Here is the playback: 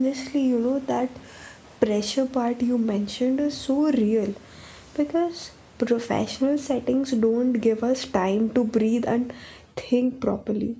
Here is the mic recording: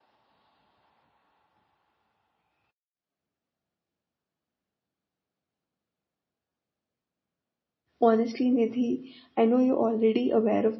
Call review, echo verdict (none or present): none